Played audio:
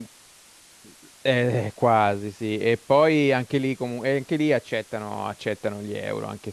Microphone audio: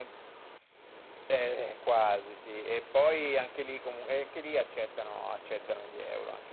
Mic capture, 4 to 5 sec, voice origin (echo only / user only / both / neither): echo only